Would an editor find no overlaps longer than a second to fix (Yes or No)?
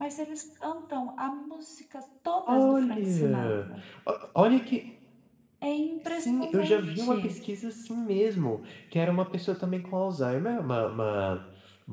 No